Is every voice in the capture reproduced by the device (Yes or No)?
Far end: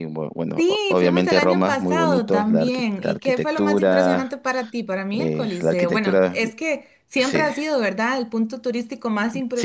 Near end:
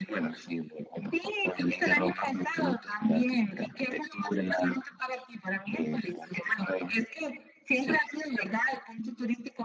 Yes